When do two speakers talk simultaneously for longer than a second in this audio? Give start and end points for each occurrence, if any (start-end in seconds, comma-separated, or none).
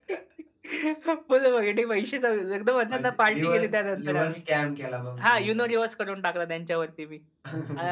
2.9-4.4